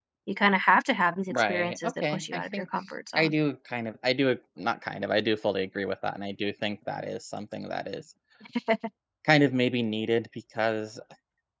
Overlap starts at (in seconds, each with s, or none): 1.3 s